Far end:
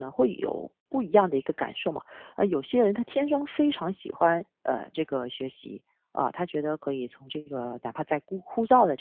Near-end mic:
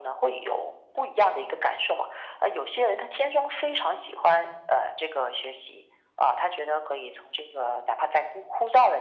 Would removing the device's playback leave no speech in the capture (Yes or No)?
Yes